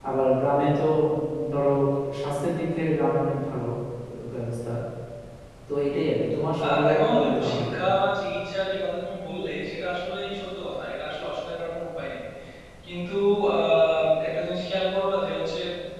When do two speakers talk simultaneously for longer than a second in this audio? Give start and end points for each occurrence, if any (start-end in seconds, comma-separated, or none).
6.6-7.9